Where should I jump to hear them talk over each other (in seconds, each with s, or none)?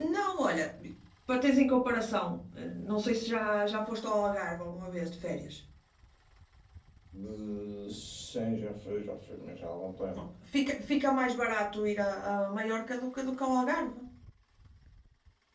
none